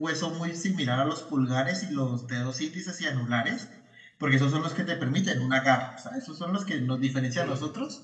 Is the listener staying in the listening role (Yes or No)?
Yes